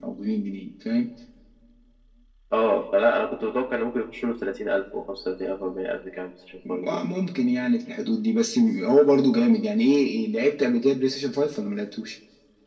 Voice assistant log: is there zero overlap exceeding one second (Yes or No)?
Yes